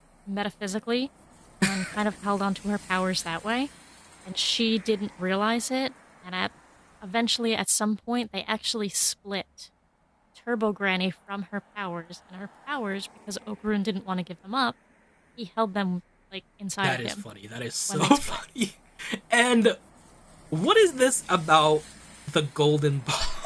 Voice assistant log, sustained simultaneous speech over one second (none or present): none